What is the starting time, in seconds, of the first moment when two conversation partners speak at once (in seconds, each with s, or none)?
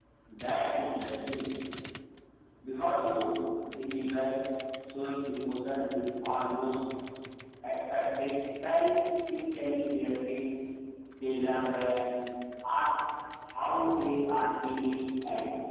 none